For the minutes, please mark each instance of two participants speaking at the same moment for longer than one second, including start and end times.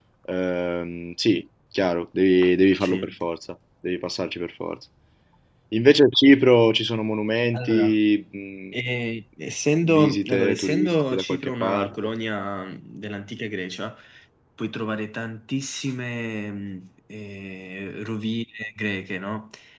9.9-11.9

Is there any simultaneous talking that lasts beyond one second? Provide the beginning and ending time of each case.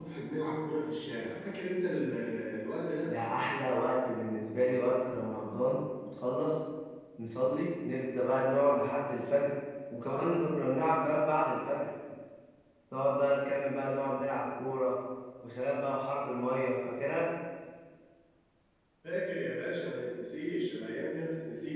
none

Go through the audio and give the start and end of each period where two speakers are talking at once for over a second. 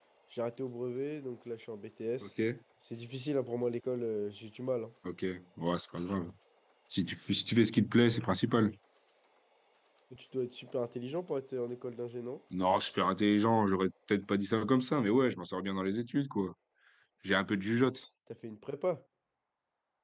none

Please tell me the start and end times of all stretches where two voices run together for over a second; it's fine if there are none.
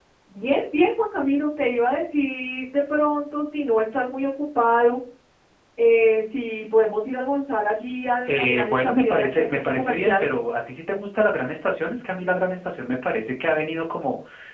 8.2-10.3

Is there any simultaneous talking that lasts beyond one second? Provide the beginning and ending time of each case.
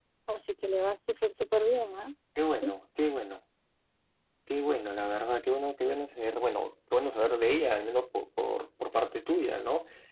none

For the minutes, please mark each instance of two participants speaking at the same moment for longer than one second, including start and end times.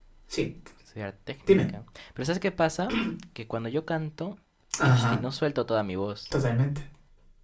none

